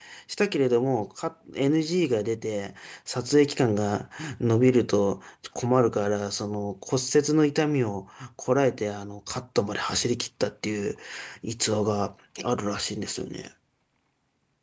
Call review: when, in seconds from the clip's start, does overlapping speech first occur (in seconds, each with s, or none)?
none